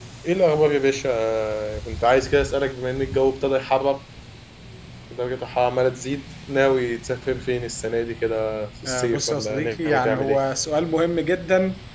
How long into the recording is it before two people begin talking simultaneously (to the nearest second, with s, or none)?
9 s